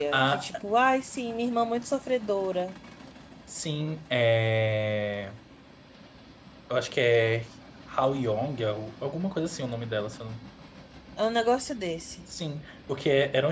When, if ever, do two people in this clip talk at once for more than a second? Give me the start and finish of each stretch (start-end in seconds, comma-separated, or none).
none